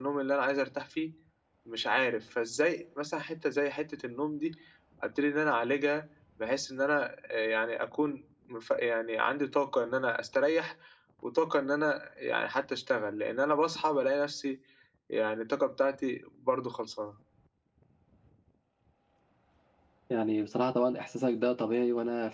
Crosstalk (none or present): none